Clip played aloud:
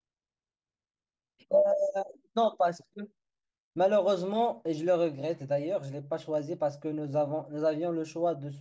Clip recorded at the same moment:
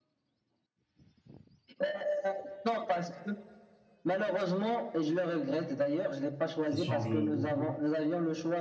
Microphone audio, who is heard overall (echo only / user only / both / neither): both